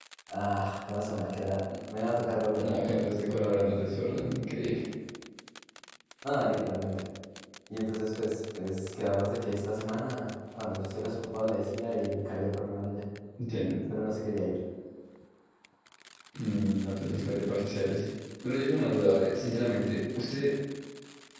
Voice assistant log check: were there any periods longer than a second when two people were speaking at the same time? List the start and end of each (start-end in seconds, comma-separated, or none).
none